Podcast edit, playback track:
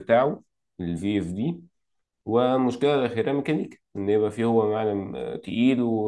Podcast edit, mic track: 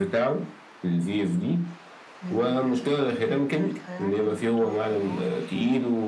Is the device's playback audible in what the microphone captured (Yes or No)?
Yes